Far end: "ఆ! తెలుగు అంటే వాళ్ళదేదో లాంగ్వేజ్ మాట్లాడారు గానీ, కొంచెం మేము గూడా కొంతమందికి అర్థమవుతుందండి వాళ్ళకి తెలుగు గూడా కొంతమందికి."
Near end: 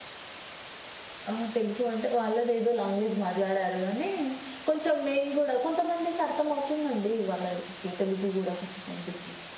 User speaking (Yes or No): No